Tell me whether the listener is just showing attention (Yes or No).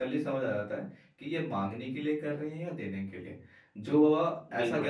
Yes